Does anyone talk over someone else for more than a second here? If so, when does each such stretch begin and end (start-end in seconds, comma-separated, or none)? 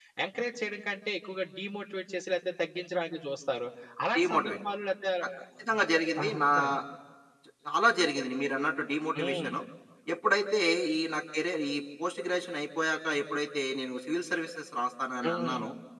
none